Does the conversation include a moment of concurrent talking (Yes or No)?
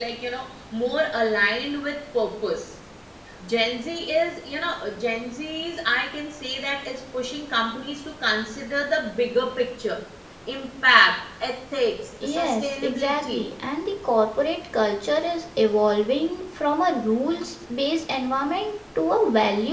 Yes